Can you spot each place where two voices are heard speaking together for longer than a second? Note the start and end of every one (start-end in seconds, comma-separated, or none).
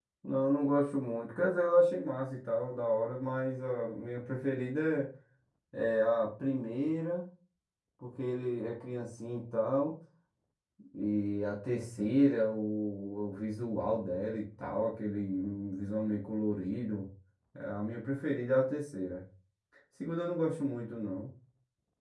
none